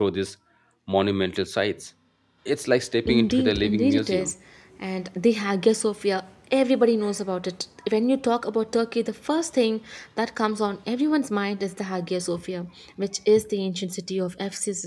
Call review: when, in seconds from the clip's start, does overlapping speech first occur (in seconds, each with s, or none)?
3.0 s